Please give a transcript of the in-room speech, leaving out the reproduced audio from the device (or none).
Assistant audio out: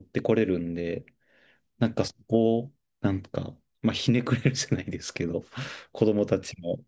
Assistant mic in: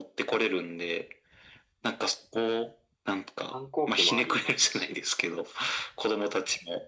反抗期もありますし、